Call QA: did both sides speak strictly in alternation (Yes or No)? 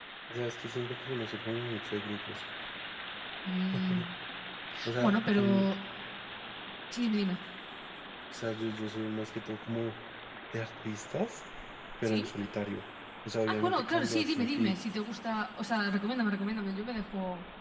No